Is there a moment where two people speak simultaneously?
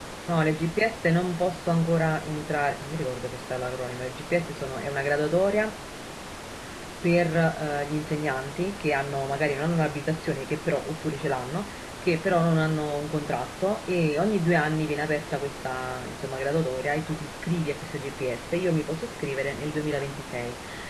No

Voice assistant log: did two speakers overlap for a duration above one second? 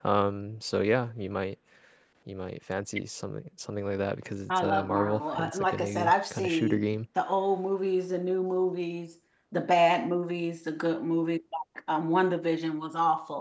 Yes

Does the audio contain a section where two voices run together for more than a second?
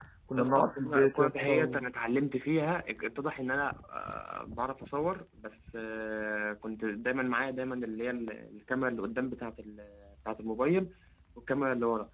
Yes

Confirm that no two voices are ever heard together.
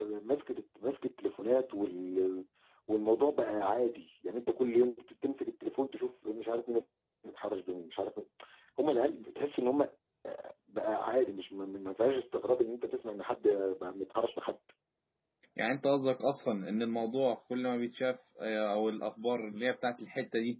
Yes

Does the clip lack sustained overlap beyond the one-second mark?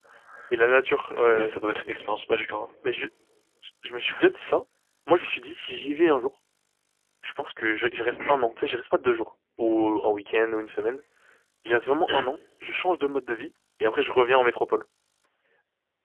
Yes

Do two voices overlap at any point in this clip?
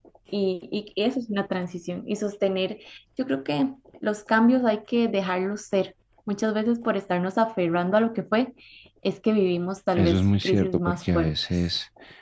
Yes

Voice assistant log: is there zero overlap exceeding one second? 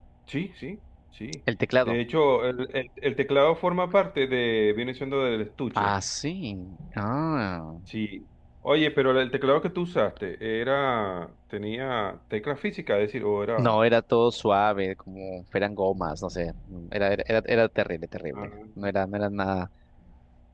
Yes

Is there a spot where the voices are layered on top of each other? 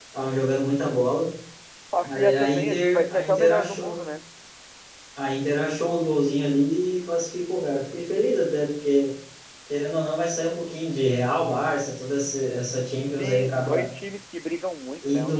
Yes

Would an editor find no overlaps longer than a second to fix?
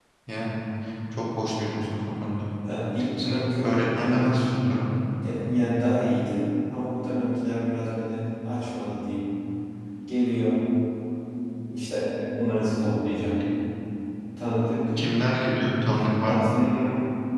No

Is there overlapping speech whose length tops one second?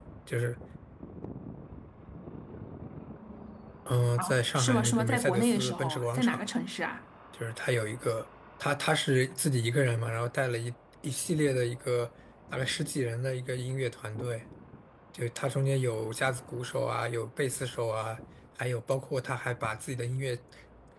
Yes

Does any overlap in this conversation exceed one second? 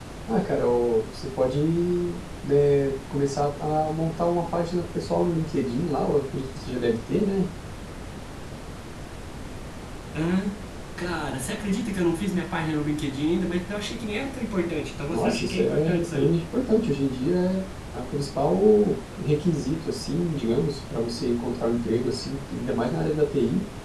Yes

